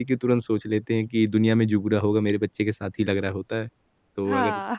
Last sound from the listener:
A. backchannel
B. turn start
A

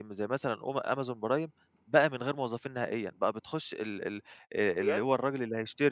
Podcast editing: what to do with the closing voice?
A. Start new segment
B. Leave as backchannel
B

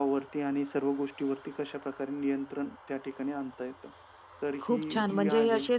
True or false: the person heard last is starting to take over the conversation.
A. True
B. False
A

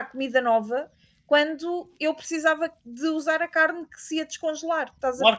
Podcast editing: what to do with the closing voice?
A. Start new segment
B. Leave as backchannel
A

